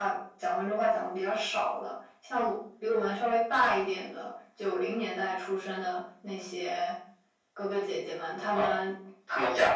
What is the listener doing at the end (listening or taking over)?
taking over